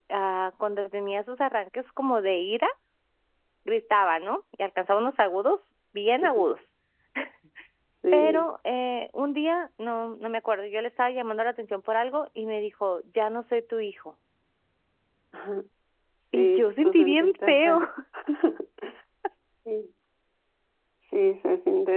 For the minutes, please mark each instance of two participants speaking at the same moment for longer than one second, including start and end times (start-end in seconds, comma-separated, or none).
16.3-17.8